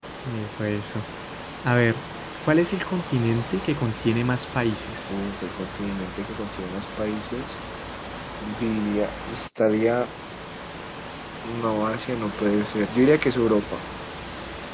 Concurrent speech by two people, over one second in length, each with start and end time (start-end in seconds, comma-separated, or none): none